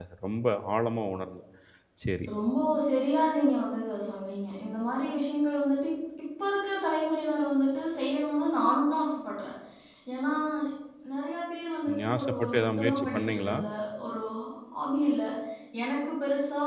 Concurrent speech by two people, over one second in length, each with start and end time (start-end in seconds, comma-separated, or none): 11.8-13.6